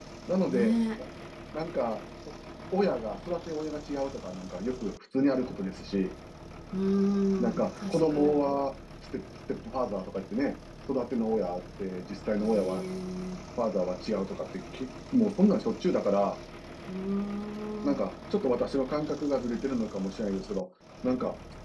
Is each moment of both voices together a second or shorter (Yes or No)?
No